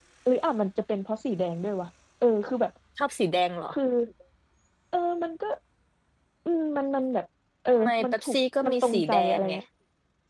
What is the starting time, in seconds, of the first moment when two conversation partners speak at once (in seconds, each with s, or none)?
7.8 s